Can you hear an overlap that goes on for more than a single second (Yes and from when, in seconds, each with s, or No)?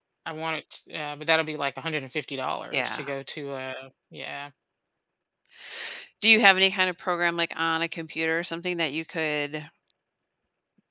No